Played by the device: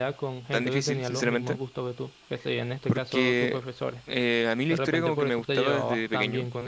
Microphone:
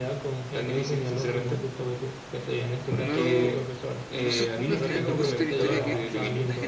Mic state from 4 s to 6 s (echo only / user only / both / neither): both